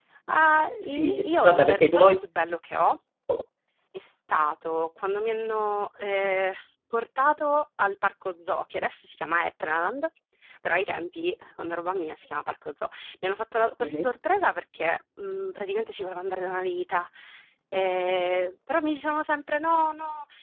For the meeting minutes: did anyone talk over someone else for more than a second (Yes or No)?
Yes